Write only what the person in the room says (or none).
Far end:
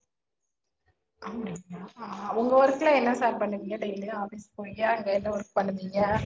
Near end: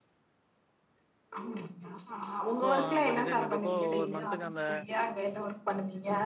ஸோ அப்போ டிசைன் பண்றோப்போ ஒவ்வொரு மந்த்துக்கு அந்த